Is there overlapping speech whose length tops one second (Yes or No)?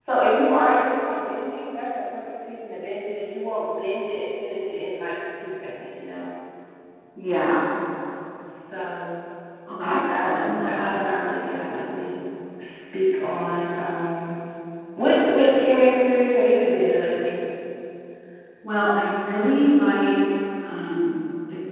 Yes